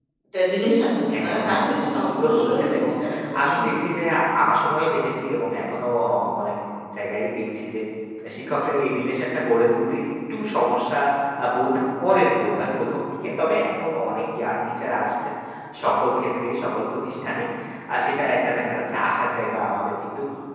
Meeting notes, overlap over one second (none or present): present